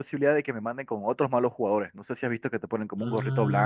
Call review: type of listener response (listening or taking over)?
taking over